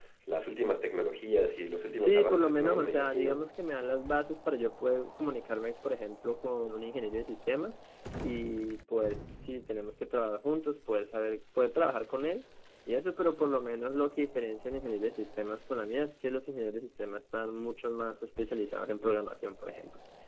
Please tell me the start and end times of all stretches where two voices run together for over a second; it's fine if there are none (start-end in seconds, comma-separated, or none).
1.9-3.4